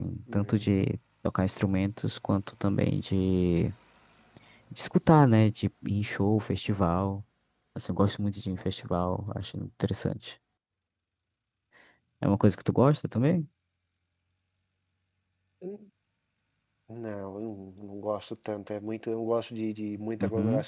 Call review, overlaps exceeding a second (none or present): none